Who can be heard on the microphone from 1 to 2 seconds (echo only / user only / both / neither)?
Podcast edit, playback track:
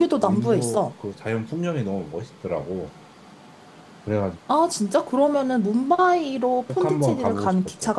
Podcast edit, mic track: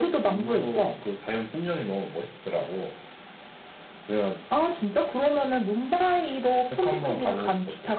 echo only